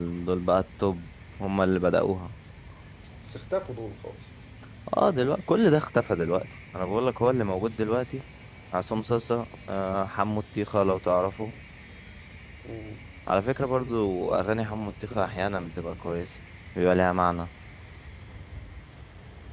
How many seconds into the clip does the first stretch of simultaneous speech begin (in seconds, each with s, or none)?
none